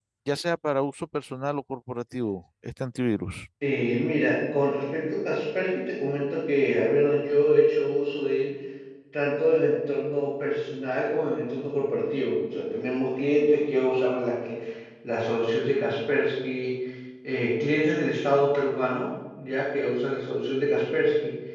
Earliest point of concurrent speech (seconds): none

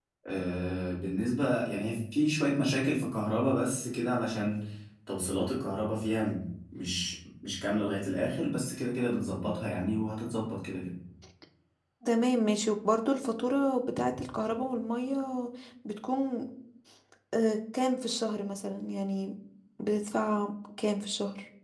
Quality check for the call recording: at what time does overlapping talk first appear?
none

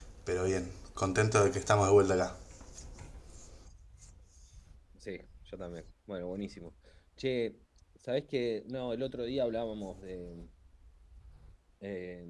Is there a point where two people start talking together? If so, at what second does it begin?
none

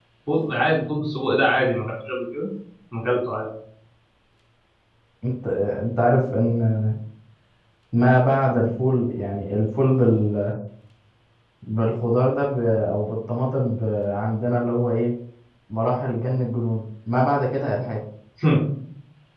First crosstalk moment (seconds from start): none

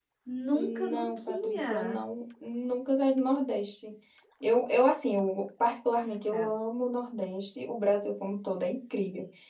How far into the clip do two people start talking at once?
1 s

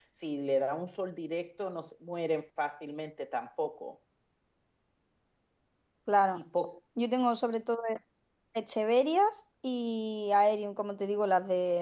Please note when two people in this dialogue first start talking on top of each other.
none

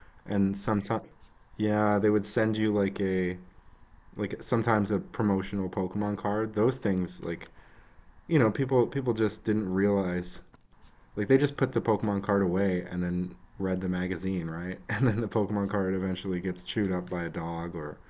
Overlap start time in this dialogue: none

